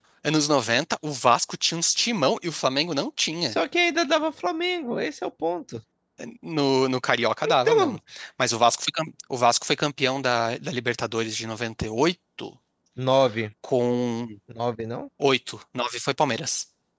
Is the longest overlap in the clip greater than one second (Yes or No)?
No